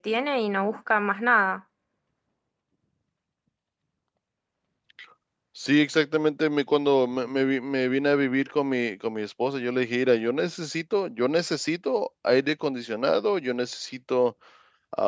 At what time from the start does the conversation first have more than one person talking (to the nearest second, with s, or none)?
none